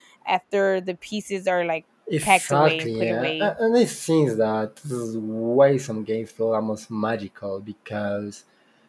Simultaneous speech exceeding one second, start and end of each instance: 2.2-3.5

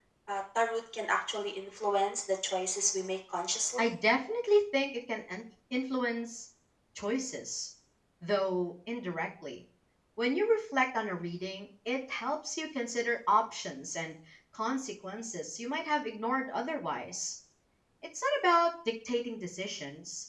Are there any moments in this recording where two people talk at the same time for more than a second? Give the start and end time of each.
none

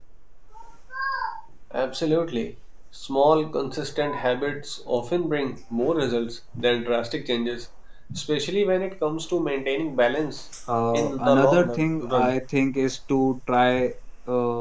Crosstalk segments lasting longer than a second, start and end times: 10.9-12.3

